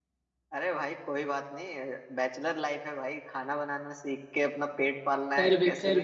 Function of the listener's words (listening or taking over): taking over